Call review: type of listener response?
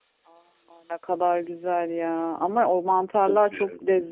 listening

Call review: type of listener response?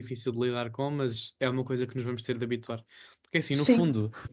listening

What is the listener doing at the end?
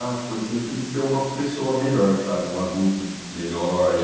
listening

